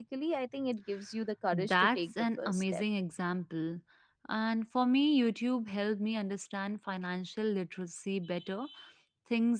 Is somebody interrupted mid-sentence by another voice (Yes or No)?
Yes